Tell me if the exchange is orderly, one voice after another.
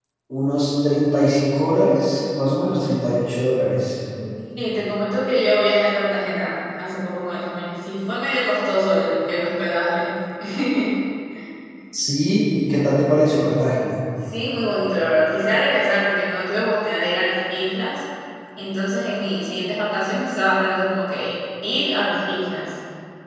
Yes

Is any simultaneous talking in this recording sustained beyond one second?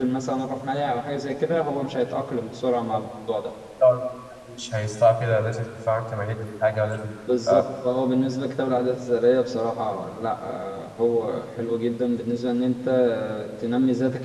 No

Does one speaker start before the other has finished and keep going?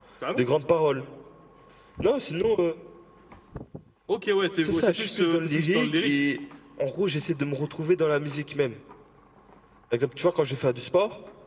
Yes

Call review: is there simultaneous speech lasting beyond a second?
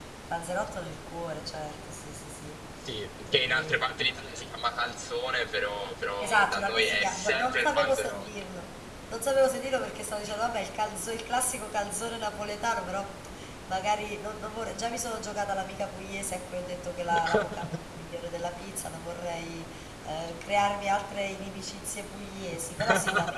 Yes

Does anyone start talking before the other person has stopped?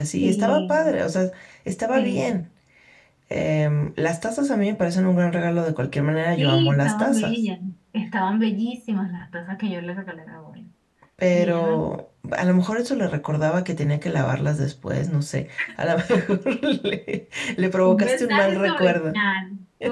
Yes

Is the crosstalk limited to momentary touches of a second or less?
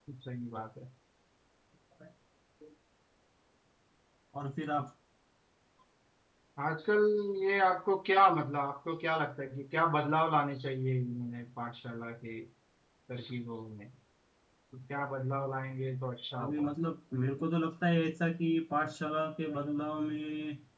Yes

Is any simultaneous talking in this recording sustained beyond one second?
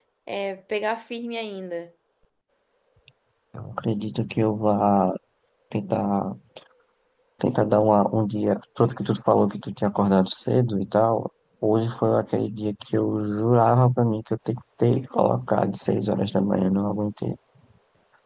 No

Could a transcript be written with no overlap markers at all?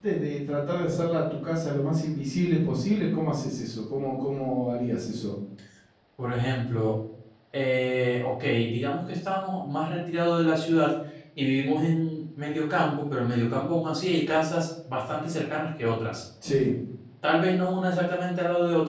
Yes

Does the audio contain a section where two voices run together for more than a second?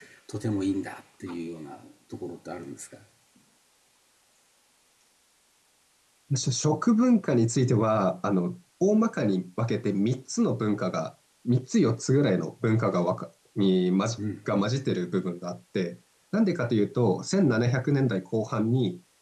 No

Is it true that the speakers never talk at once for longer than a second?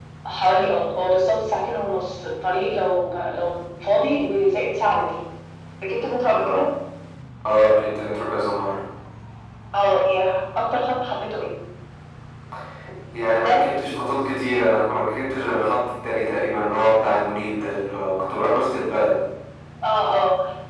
Yes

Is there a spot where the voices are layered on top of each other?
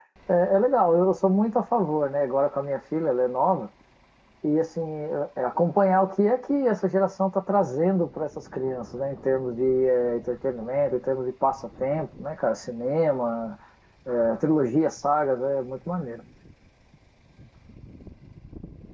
No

